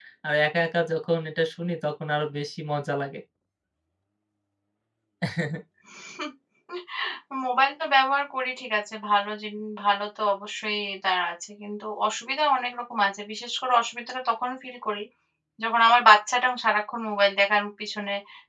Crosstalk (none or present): none